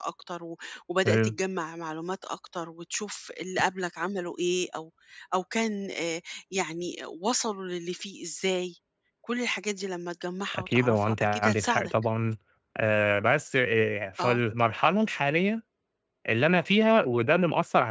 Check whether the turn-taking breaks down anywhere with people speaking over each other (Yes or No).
Yes